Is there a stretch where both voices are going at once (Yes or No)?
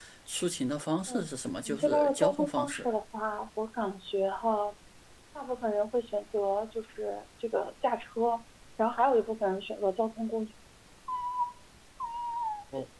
Yes